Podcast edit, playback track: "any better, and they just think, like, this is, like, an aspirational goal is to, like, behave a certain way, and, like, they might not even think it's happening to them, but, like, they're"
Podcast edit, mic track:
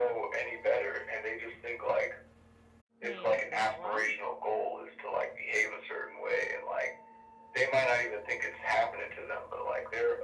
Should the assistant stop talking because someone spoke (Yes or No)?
Yes